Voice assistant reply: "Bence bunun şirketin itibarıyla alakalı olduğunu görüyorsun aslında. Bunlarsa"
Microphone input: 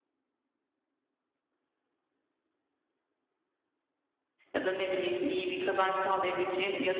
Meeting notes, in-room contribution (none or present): present